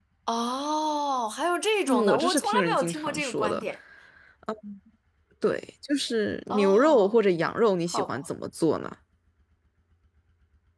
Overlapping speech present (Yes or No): Yes